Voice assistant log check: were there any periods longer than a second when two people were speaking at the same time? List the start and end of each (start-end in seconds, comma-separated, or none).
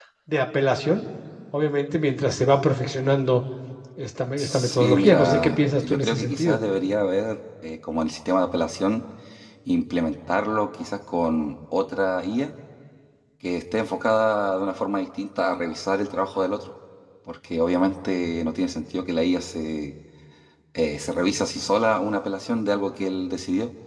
4.4-6.6